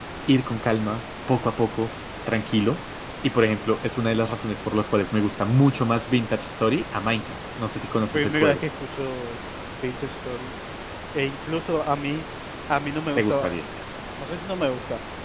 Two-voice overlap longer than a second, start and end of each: none

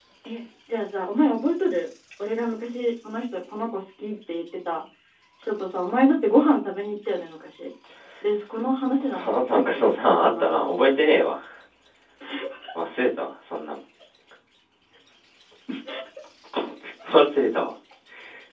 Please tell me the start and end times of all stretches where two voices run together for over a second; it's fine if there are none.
9.2-10.7

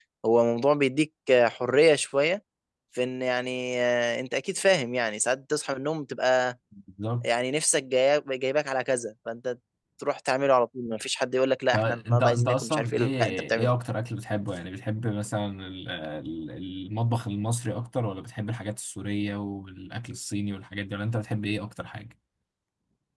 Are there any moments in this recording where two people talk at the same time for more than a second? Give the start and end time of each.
11.7-13.7

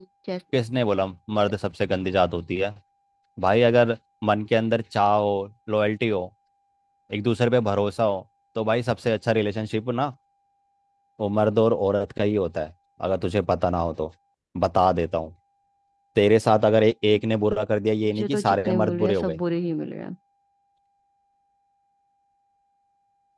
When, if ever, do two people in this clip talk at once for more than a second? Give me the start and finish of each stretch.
18.0-19.4

